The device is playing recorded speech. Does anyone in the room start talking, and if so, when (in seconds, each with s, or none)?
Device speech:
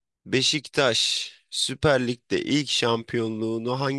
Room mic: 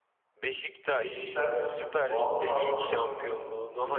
1.0 s